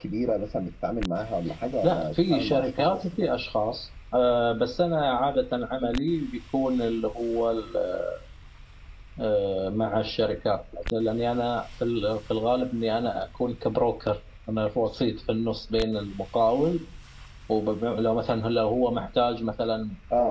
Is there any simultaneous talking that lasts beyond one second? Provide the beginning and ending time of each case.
1.8-3.0

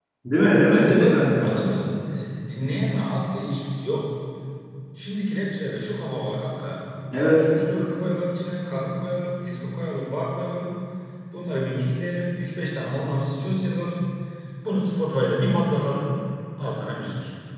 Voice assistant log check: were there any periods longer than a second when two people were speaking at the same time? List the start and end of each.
none

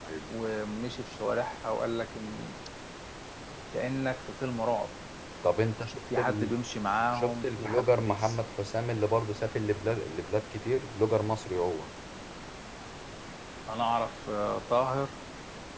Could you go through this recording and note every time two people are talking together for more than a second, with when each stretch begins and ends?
7.1-8.4

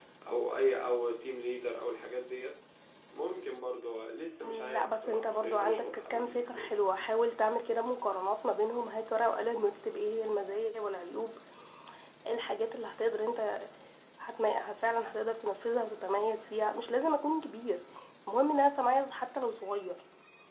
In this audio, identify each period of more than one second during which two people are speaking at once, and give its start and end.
4.4-6.7

